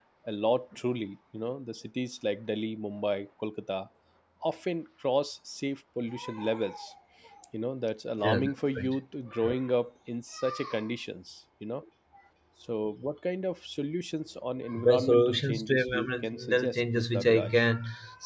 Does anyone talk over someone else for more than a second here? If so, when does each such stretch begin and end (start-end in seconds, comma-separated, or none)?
14.8-17.6